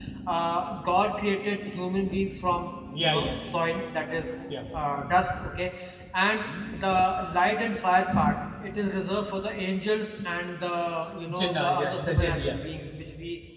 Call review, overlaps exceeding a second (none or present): present